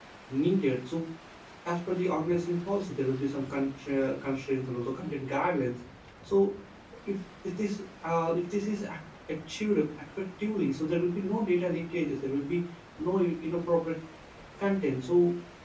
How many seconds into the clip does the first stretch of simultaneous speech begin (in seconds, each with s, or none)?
none